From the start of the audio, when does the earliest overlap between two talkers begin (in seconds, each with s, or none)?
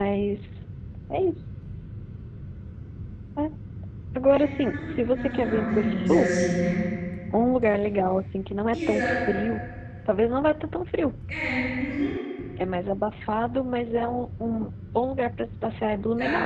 4.3 s